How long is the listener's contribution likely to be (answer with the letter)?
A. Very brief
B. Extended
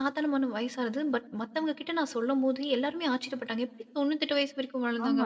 B